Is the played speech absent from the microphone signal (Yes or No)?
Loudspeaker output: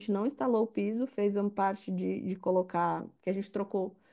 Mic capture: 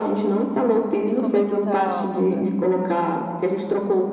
No